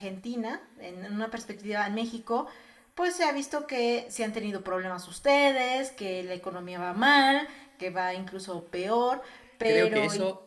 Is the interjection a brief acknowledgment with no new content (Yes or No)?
No